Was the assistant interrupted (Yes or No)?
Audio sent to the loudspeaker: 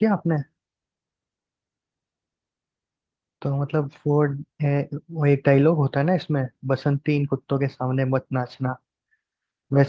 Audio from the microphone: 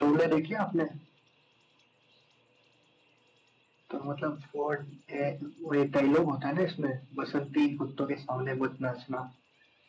No